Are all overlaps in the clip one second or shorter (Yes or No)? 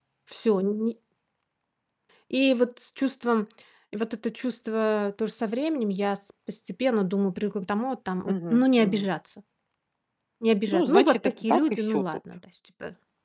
No